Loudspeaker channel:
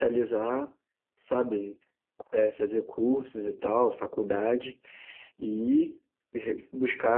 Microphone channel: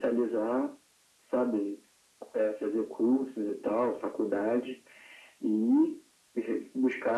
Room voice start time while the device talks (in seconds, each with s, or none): none